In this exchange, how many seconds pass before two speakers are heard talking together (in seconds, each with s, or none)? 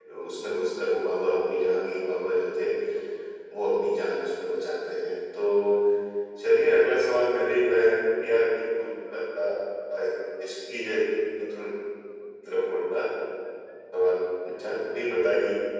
none